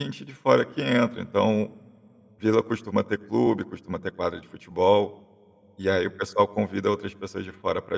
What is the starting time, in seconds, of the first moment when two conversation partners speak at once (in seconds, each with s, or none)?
none